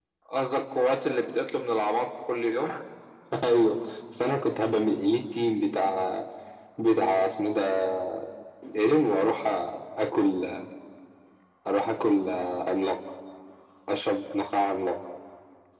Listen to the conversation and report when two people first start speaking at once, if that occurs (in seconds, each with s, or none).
none